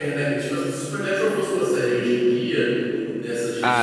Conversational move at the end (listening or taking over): taking over